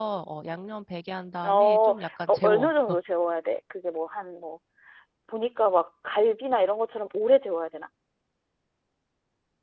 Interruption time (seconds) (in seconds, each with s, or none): 1.5 s